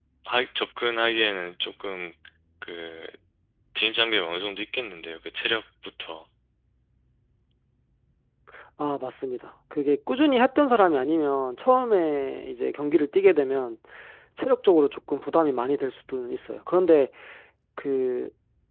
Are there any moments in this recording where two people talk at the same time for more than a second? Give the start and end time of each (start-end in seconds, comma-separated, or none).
none